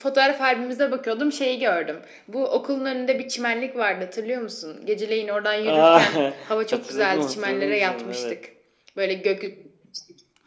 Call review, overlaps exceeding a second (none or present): present